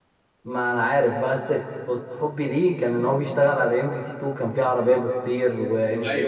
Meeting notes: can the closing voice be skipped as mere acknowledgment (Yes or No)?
No